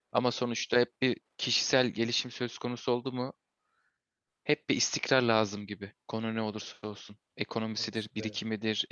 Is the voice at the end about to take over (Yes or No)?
No